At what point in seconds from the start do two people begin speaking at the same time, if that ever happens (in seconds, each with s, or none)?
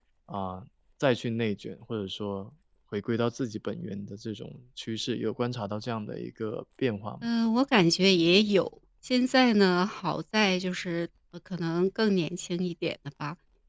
none